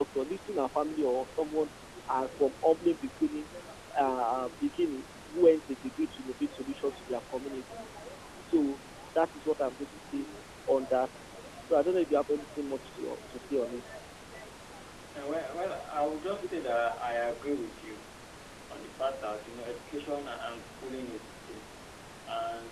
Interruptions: none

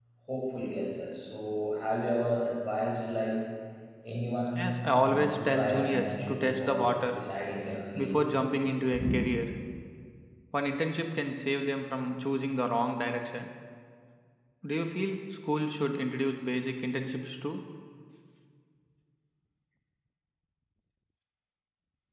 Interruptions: present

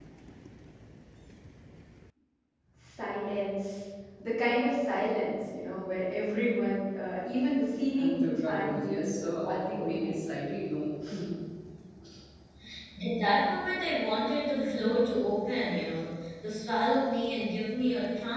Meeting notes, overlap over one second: present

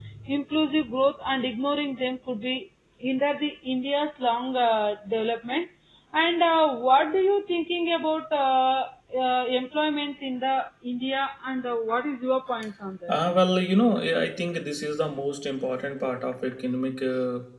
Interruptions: none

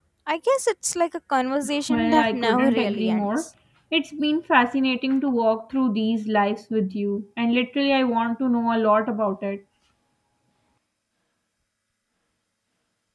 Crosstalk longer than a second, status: present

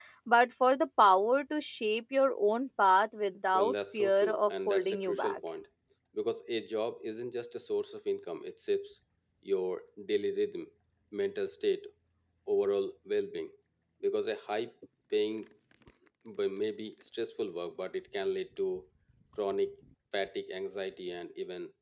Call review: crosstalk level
present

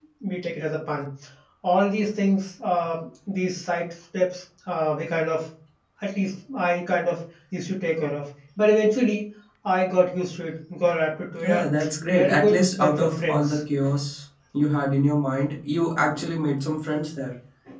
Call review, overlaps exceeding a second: present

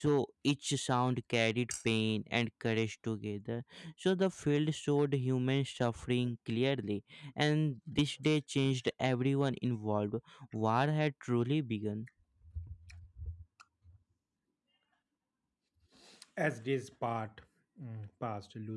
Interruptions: none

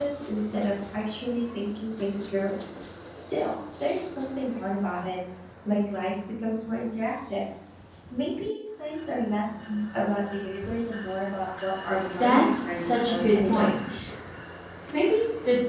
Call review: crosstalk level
present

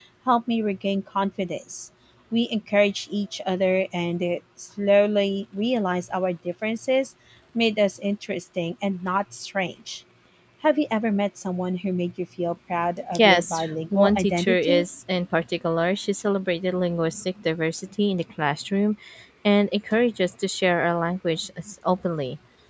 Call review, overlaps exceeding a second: present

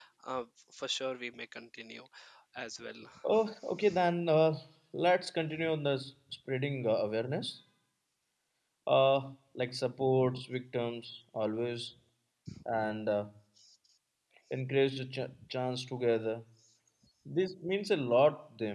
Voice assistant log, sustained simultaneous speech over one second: none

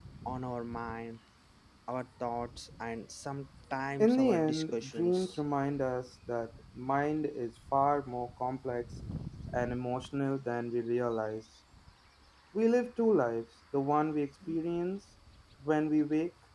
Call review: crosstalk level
present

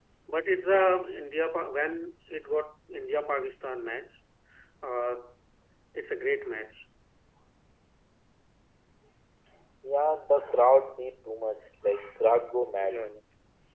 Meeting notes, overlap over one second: none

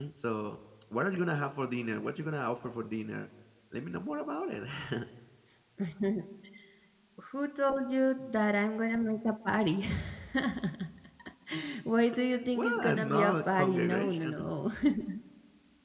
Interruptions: present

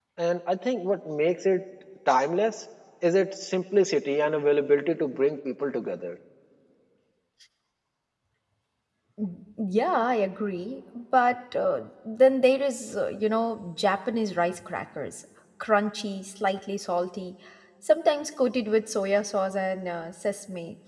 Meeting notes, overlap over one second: none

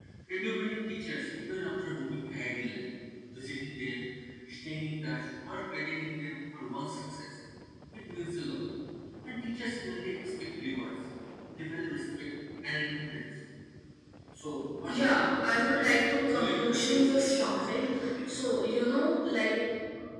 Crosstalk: present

